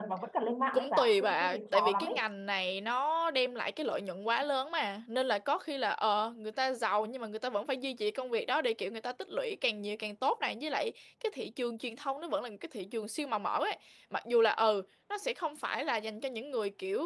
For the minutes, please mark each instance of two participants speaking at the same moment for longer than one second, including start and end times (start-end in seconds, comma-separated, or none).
0.7-2.1